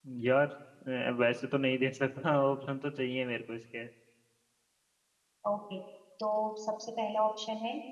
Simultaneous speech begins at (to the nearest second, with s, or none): none